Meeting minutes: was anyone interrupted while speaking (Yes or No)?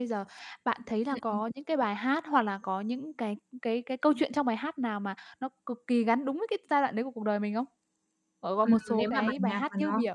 Yes